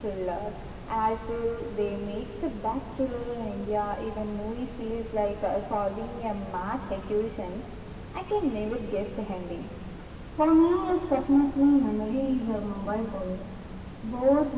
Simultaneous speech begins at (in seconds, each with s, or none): none